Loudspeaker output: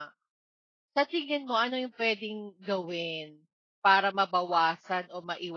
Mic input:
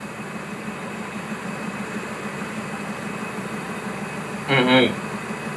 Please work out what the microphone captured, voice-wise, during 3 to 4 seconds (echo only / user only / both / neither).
neither